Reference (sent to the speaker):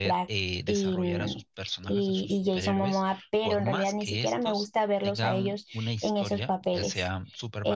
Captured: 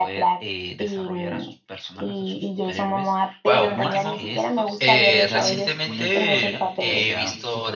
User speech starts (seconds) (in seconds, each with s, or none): 3.4 s